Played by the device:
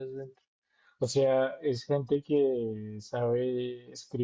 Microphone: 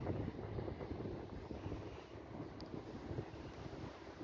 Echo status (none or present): none